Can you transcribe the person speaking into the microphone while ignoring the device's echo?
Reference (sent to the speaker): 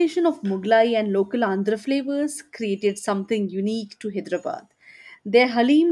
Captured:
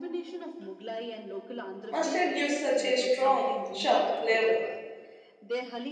Mustard gives such a strong, sharp flavor,

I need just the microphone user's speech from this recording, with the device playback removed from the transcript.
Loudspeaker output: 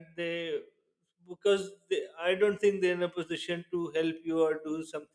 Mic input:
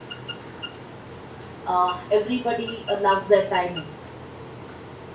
uh, everybody uh, loves their timings

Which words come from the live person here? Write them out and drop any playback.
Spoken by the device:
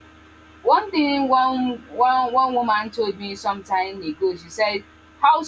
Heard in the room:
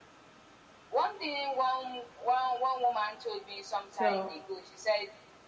So

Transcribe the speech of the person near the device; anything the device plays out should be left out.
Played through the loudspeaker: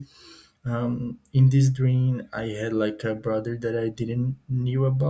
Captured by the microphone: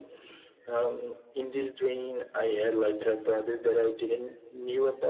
none

